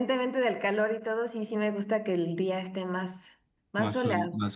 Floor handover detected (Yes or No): Yes